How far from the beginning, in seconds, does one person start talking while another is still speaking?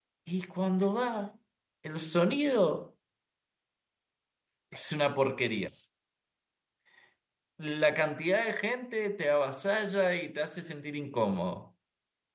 none

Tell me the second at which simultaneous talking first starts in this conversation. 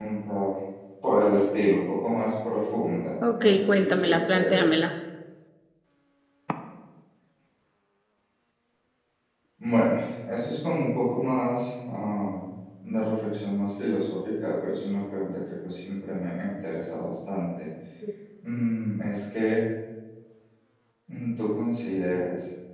3.2 s

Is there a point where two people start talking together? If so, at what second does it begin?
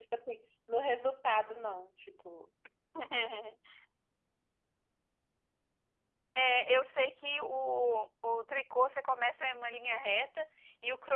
none

